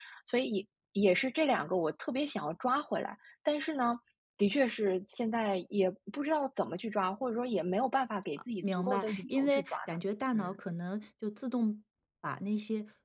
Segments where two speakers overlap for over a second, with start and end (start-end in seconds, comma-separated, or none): 8.6-10.0